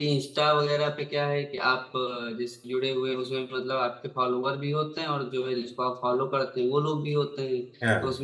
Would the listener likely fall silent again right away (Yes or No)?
Yes